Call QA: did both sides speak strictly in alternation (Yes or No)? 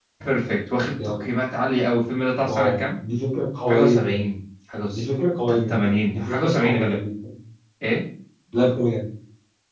No